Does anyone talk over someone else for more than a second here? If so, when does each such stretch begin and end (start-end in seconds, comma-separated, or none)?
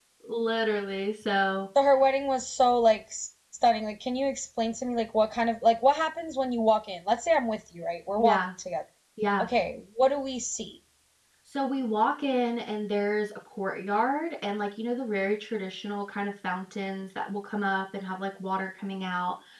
none